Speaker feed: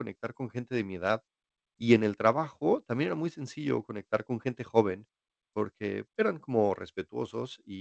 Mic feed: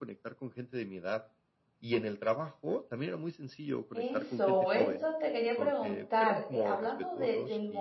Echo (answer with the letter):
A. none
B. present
B